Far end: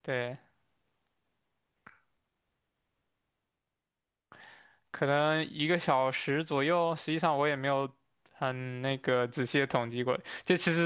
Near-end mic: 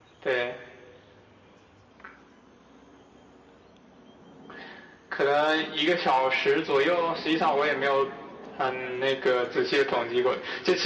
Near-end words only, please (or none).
none